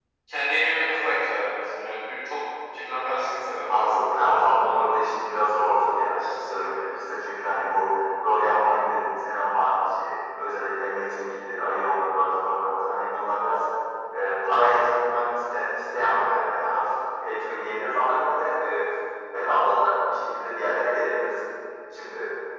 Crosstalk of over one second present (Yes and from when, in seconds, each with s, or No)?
No